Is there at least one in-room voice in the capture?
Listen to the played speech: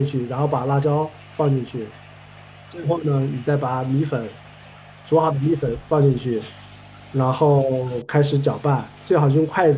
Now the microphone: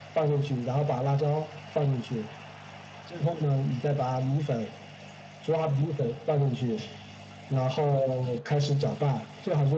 No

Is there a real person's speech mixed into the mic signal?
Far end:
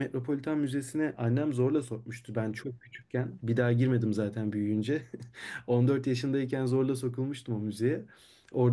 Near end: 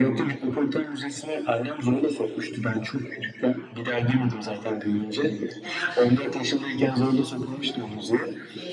Yes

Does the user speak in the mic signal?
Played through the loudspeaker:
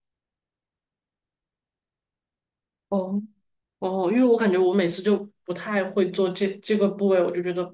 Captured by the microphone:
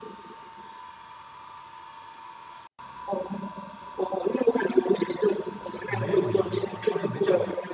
Yes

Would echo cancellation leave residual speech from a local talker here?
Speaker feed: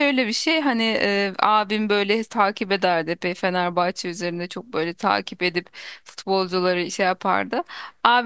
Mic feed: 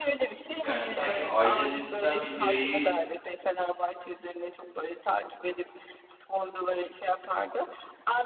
Yes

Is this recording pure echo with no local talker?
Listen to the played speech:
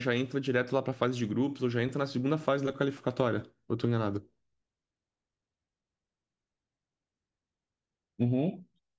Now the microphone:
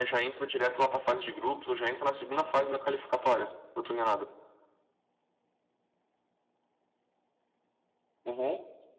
Yes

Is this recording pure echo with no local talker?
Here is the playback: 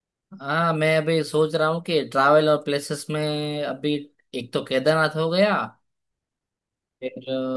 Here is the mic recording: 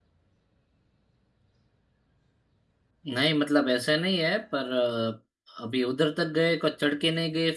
No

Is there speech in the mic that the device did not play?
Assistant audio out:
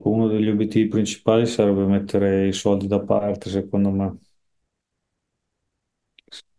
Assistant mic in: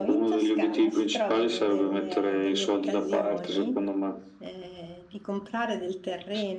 Yes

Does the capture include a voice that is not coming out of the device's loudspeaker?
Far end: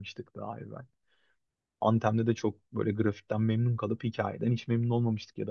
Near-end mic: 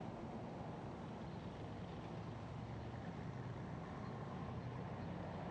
No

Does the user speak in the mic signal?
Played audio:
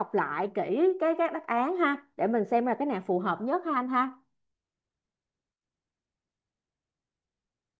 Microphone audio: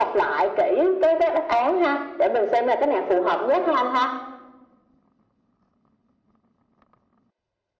No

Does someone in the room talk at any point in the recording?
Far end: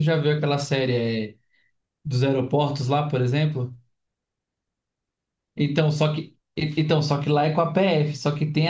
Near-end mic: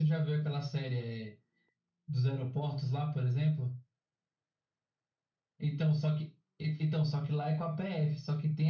No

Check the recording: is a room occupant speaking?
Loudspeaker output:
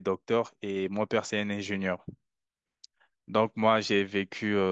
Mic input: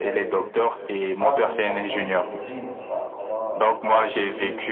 Yes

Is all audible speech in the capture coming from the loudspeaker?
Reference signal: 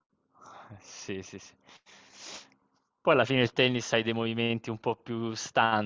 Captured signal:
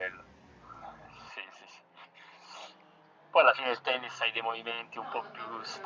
No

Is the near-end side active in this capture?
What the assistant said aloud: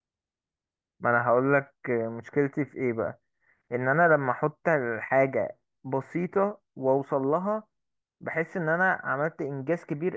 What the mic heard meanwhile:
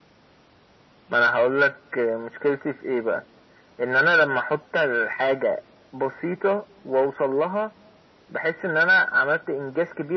No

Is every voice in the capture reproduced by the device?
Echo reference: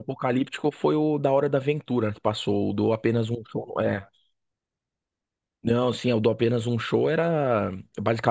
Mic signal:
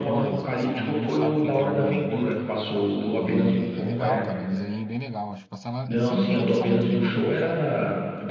No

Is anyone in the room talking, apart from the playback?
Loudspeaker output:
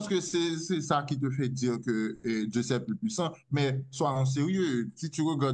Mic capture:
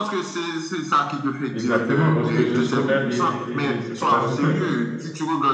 Yes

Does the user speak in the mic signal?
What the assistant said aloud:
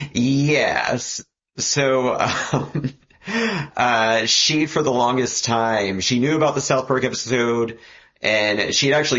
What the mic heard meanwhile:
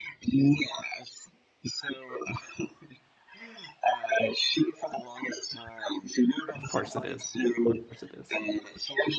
Yes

